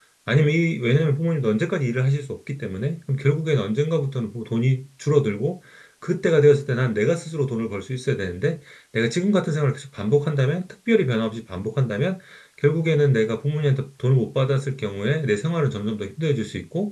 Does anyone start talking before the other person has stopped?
No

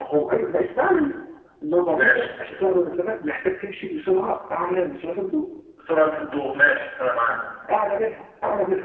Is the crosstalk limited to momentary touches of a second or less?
Yes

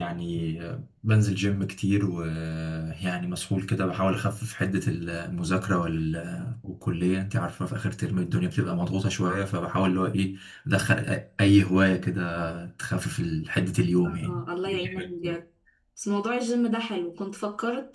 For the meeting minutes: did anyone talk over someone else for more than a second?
Yes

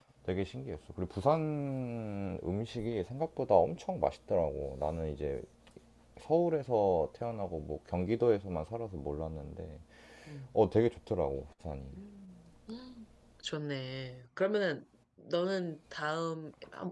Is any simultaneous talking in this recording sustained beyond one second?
No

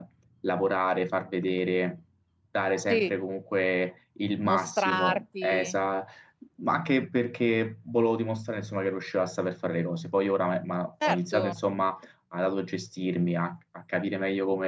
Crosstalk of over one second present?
Yes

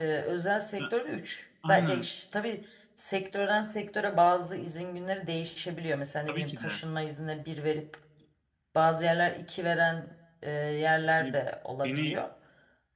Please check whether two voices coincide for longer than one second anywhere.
No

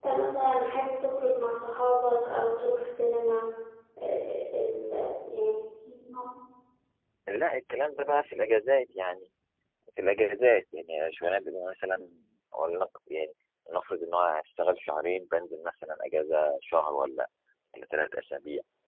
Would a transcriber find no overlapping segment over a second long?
Yes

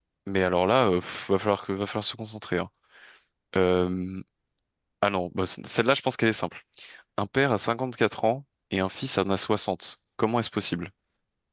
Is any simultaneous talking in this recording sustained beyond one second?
No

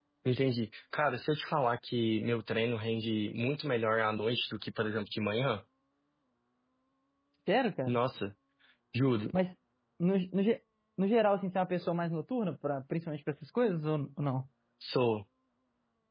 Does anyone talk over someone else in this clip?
No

